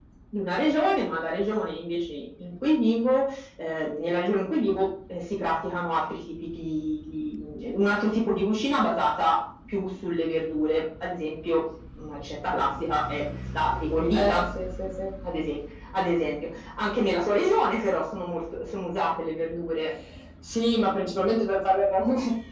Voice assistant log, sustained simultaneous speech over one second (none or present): none